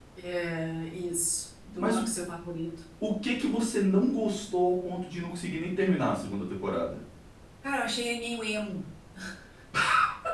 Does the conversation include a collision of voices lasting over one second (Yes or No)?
No